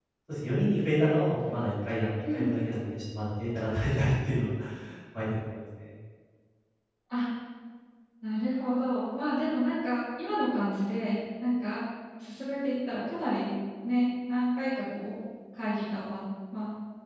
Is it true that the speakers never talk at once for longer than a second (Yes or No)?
Yes